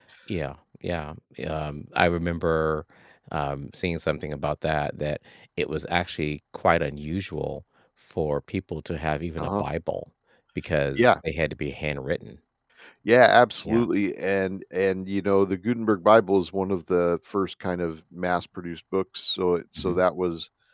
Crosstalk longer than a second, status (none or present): none